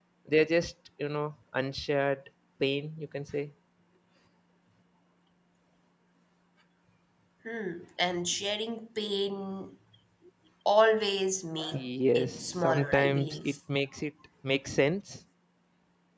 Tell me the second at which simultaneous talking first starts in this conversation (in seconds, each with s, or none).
12.2 s